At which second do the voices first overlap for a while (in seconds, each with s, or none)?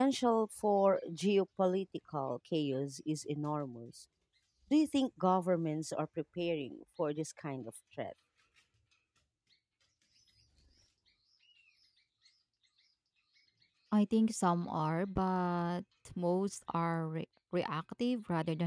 none